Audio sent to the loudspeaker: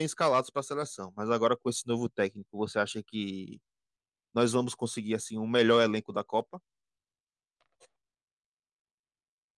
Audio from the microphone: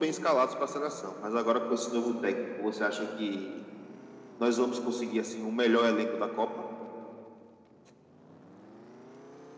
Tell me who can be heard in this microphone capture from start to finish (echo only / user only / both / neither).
echo only